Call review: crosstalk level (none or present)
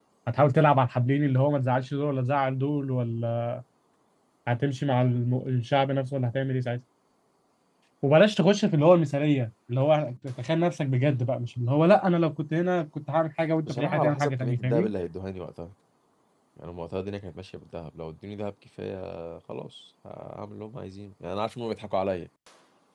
present